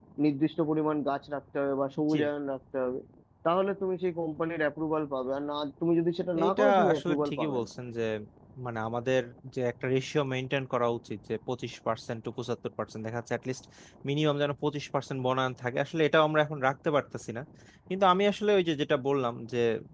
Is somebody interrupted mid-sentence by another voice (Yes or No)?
Yes